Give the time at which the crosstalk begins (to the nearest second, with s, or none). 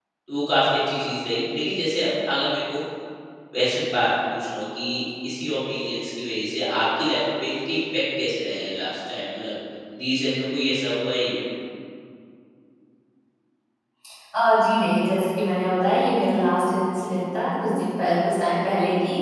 none